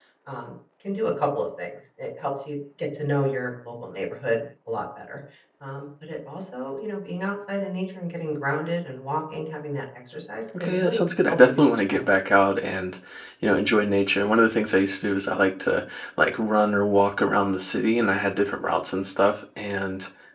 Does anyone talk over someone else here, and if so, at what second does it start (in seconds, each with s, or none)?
10.5 s